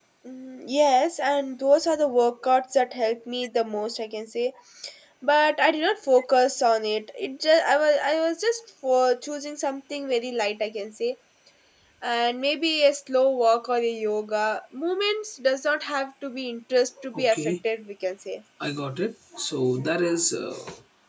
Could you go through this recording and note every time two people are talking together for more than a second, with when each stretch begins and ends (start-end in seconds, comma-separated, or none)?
none